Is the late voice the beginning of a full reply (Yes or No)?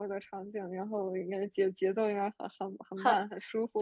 Yes